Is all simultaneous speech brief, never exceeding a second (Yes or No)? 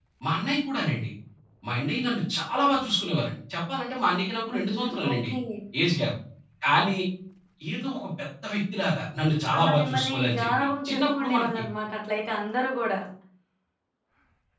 No